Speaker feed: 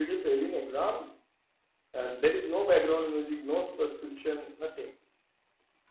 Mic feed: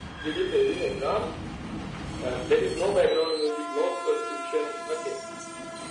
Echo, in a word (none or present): present